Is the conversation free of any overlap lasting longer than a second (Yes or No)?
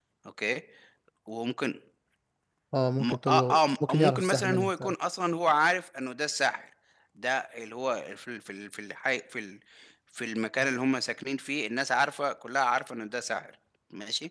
No